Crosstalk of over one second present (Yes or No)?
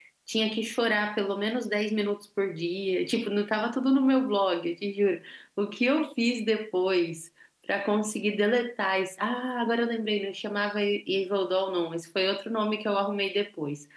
No